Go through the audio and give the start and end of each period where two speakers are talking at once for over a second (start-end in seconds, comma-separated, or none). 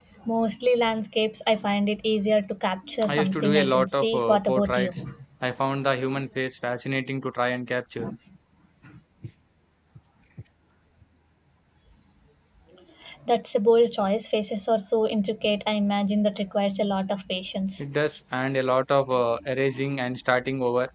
3.1-5.0